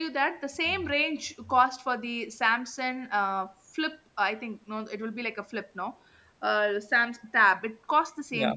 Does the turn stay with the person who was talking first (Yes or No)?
Yes